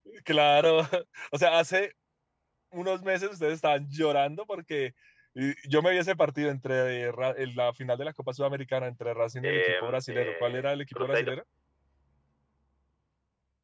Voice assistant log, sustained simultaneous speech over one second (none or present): present